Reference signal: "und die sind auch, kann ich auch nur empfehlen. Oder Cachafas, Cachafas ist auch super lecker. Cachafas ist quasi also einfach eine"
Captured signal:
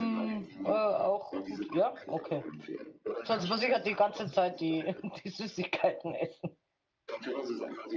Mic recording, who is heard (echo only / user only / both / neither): both